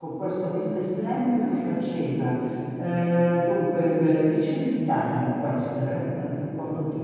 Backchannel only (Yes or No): Yes